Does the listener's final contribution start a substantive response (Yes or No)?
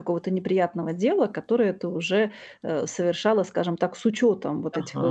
Yes